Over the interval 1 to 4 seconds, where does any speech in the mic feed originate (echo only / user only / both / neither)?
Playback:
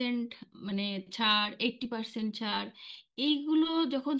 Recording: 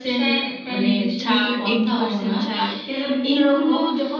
both